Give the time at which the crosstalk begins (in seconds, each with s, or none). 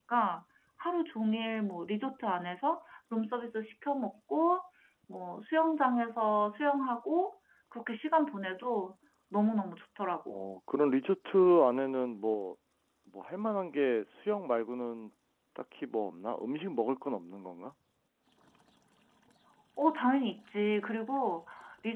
none